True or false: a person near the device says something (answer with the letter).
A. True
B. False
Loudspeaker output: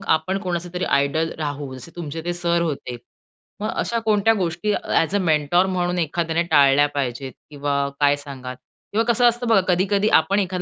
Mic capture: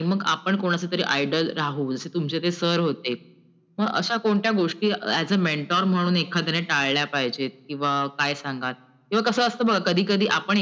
B